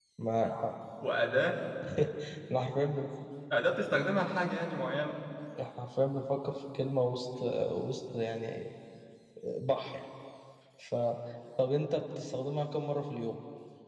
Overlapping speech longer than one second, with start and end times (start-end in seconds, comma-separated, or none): none